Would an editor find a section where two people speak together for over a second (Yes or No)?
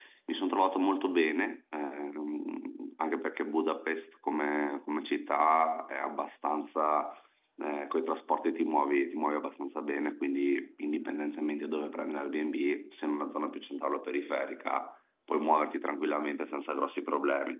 No